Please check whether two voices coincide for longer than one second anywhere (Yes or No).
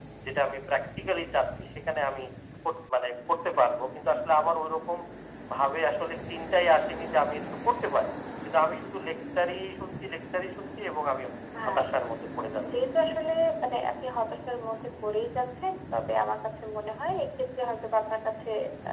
No